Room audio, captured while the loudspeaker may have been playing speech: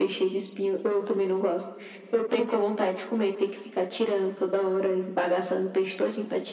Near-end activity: none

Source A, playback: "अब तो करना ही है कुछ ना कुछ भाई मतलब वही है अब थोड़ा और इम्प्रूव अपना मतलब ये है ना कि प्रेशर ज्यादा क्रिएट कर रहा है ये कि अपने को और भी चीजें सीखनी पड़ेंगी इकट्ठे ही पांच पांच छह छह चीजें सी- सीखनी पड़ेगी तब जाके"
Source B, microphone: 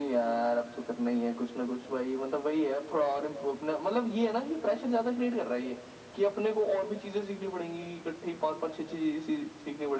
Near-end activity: none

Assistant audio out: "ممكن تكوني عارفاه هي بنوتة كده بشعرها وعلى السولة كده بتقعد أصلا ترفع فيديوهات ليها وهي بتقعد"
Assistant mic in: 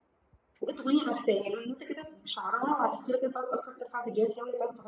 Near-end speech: none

